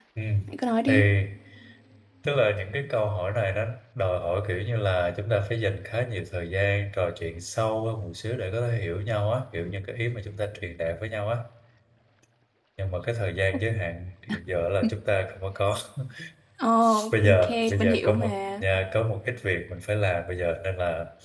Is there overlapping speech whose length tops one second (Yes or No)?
Yes